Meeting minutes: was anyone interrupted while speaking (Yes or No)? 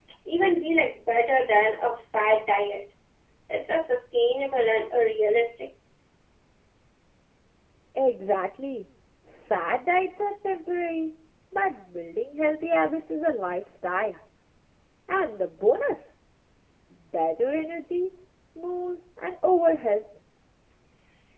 No